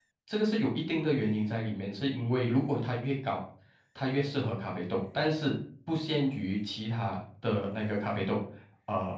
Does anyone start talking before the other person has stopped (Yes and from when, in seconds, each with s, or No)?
No